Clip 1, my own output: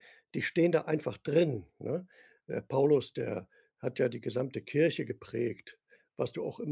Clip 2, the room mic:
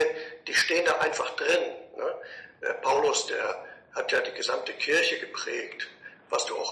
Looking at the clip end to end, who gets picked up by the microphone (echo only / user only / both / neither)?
echo only